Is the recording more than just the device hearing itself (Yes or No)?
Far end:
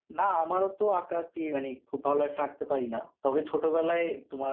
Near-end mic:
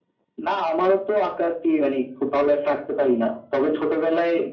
No